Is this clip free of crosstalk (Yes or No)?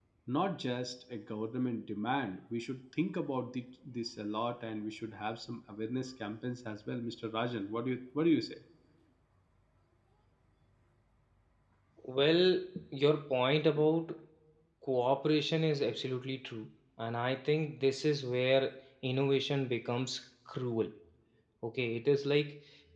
Yes